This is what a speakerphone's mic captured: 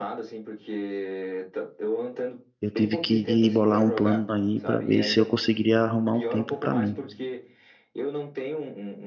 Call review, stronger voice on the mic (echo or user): user